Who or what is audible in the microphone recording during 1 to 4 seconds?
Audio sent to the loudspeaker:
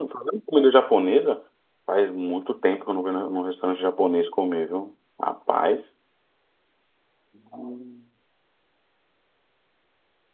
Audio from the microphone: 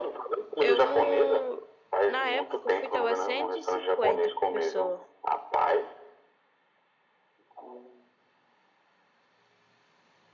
both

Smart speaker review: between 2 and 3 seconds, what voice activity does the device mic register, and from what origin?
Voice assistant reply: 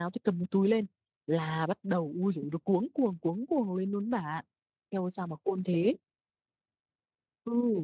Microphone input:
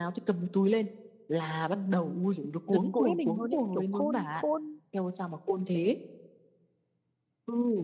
both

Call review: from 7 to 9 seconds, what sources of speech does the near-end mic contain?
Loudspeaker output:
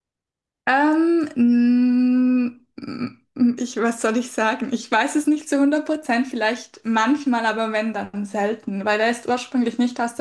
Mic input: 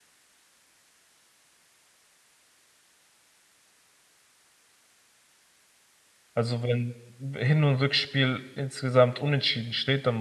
user only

